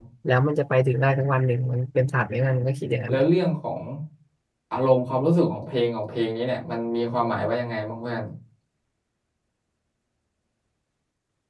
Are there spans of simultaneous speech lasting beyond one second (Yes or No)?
No